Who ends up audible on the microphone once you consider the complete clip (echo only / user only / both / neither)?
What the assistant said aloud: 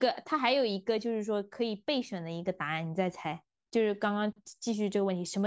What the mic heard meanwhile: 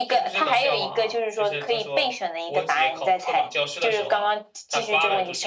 both